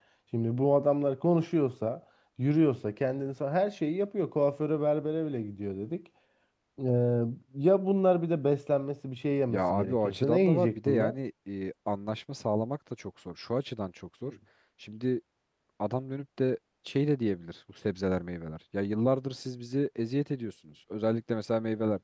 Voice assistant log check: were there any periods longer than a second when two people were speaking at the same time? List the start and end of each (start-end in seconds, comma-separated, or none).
9.5-11.1